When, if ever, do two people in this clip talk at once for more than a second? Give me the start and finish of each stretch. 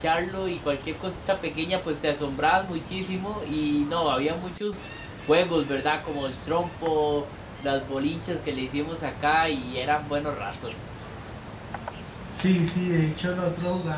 none

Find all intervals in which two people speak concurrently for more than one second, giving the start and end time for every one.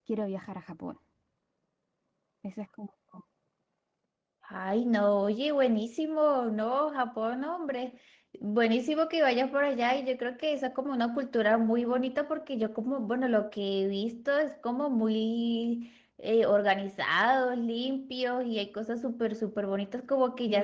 none

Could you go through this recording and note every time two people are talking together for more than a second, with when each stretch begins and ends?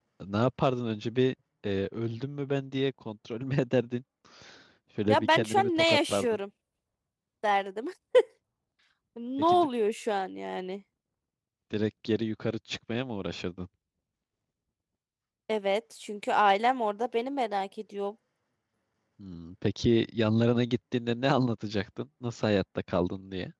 5.1-6.4

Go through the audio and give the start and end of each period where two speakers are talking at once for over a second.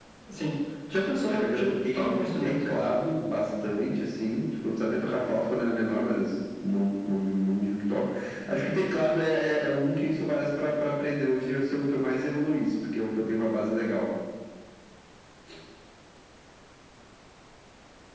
1.3-2.6

